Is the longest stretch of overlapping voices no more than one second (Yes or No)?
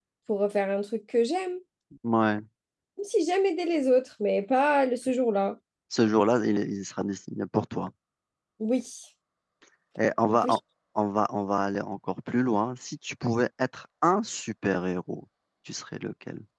Yes